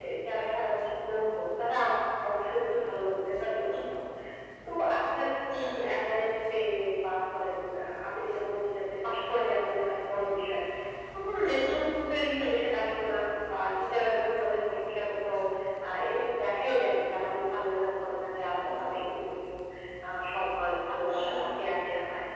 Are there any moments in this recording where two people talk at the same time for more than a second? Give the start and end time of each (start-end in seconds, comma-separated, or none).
none